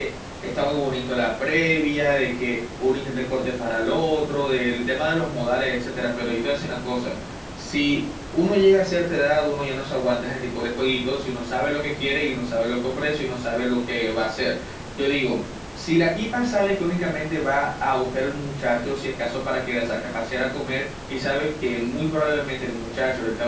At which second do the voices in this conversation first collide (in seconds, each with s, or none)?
none